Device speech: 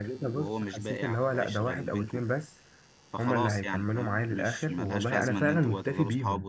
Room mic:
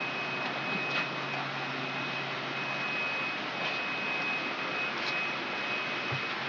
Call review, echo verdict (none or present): none